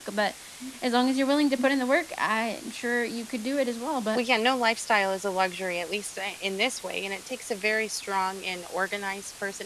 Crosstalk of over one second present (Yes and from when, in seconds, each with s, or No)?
No